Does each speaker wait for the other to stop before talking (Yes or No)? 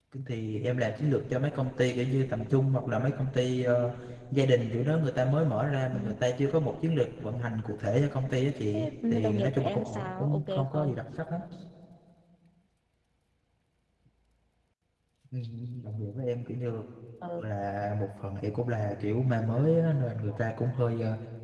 No